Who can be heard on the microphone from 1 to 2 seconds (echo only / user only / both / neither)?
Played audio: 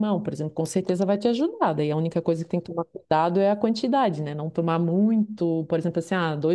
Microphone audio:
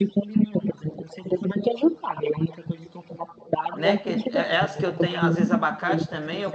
echo only